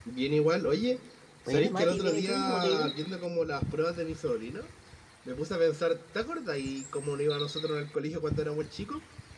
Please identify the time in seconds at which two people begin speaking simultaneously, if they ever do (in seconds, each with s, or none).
1.5 s